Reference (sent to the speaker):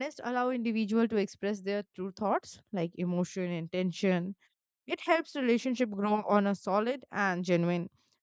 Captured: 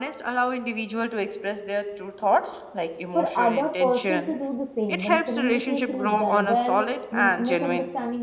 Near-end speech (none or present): present